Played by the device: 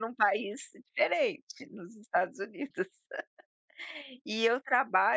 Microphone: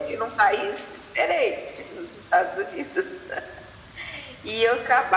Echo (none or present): present